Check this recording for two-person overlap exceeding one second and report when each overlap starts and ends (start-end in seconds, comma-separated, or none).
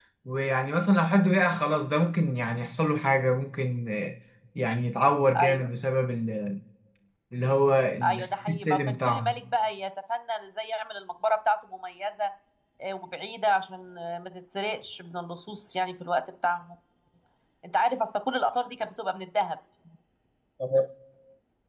8.0-9.3